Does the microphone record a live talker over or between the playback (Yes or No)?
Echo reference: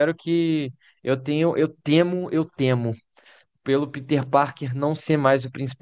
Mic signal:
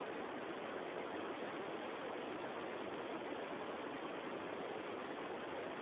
No